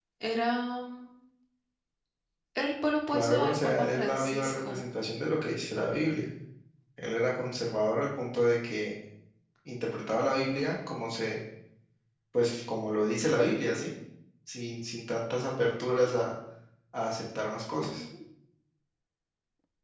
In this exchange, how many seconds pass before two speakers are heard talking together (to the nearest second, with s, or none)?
3 s